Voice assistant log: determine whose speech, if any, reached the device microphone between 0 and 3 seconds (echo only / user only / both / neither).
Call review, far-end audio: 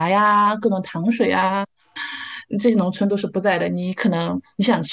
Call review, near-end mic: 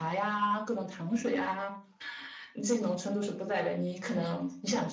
echo only